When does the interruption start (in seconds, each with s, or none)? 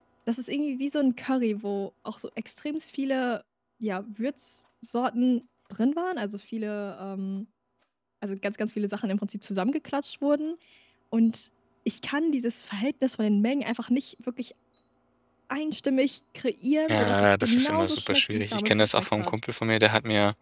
16.9 s